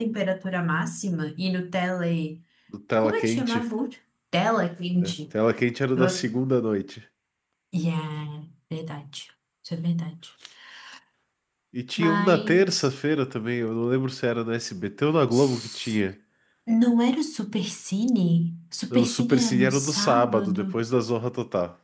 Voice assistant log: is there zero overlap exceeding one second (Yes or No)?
No